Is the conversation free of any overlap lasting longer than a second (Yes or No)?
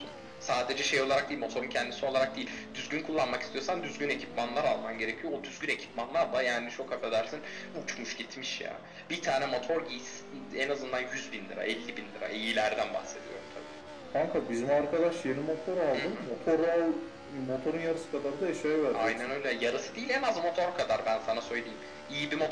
Yes